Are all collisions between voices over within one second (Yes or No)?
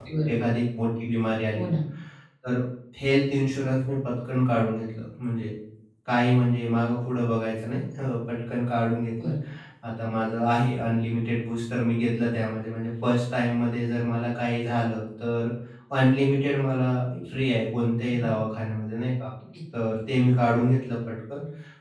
Yes